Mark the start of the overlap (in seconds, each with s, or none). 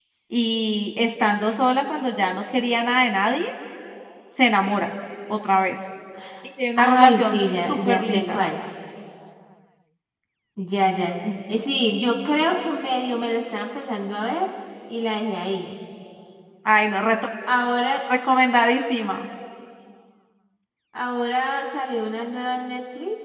6.8 s